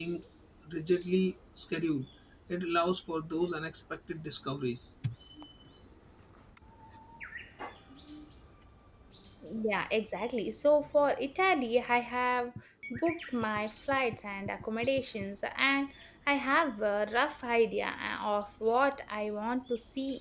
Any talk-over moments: No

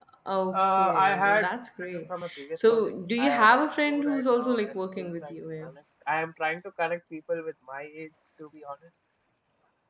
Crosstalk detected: Yes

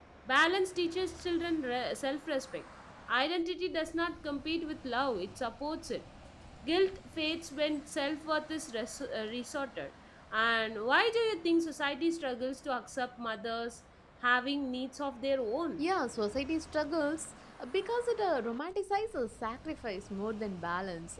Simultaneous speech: No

